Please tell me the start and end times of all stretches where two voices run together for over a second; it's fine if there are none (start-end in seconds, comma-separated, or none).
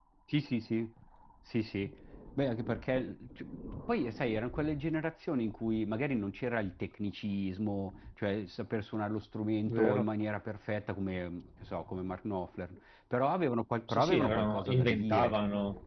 13.9-15.3